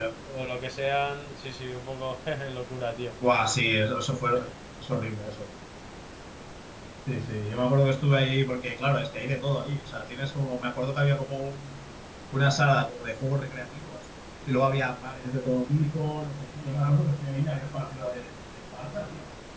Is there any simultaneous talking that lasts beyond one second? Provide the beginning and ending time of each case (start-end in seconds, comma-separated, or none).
none